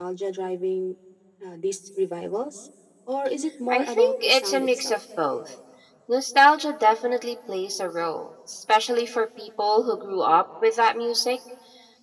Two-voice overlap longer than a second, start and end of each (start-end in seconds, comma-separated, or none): 3.7-5.0